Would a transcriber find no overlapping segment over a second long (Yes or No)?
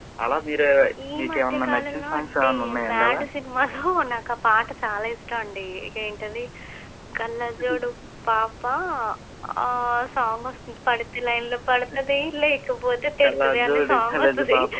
No